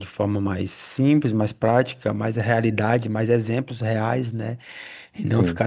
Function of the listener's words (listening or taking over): listening